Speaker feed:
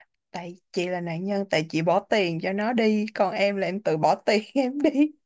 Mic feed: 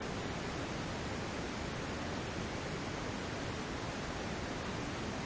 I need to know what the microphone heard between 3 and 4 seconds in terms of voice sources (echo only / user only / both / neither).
neither